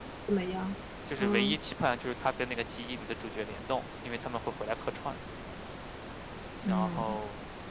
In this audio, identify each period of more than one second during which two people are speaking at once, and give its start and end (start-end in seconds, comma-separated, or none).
none